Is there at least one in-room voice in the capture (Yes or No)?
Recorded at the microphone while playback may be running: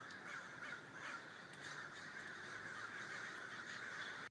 No